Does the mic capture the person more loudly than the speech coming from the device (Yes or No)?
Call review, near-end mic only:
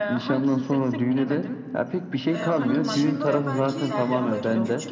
No